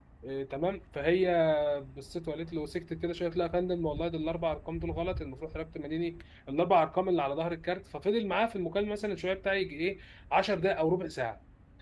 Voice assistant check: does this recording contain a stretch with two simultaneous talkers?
No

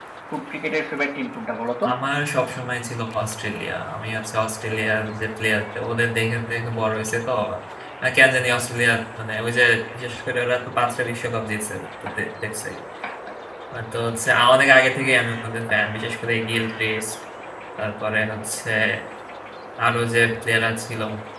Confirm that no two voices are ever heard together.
Yes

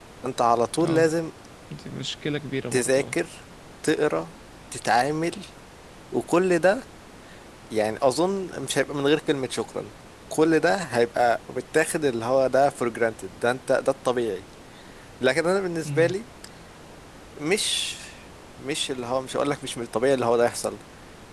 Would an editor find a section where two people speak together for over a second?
No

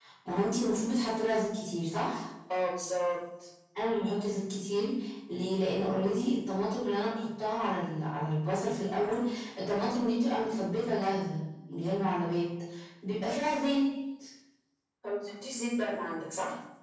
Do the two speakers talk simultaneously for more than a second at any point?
No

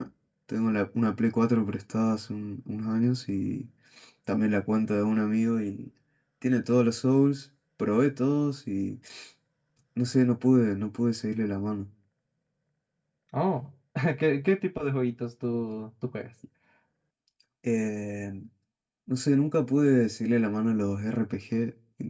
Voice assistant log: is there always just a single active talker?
Yes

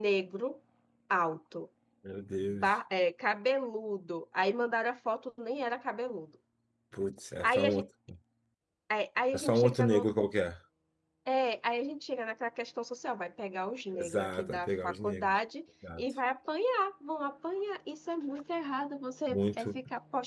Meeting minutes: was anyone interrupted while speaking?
Yes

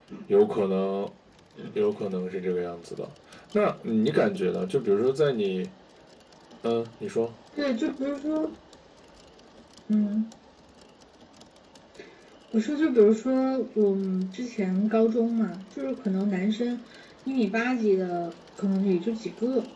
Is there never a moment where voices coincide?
Yes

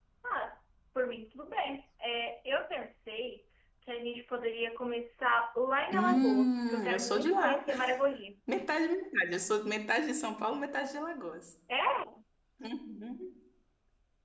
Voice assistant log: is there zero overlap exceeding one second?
No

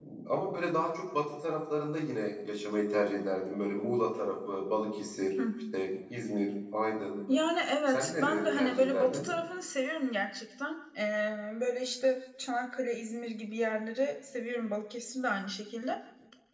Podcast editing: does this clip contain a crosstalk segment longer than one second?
Yes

